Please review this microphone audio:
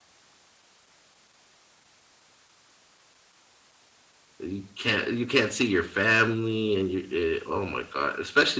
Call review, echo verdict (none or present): none